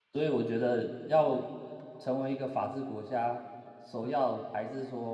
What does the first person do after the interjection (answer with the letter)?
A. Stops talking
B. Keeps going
B